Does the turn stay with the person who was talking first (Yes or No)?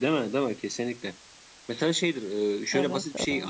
Yes